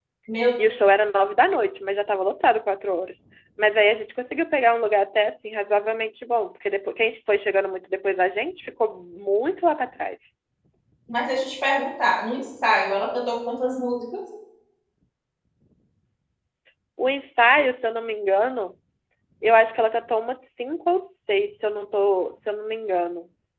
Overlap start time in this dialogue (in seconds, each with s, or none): none